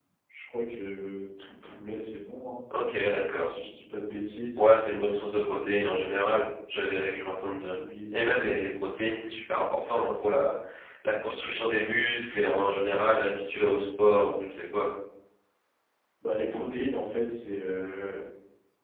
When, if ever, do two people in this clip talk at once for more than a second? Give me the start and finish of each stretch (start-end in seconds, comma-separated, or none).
none